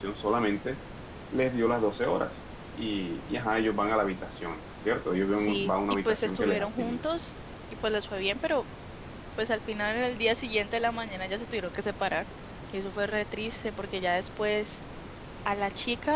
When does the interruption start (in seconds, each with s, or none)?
5.3 s